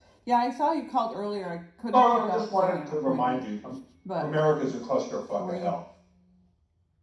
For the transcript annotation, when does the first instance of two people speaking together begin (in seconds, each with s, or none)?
1.9 s